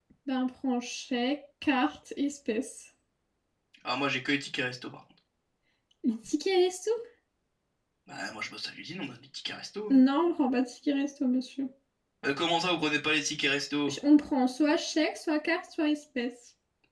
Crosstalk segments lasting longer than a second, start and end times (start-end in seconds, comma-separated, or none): none